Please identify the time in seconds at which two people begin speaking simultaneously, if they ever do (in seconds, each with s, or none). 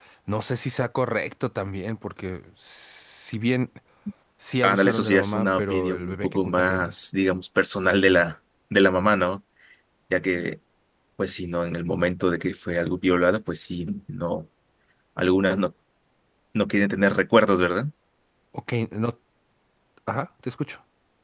4.6 s